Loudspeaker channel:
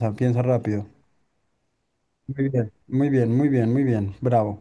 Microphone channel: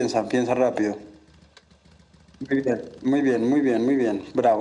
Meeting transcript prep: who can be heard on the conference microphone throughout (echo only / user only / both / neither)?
echo only